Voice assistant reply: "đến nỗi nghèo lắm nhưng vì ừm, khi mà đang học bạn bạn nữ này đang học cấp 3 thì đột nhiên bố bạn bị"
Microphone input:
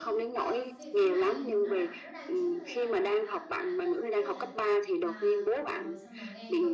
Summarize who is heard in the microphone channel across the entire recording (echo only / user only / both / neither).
both